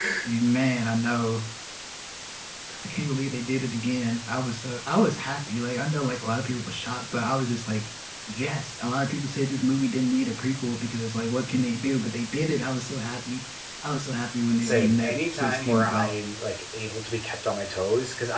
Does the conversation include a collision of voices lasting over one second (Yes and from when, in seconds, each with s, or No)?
Yes, from 14.6 s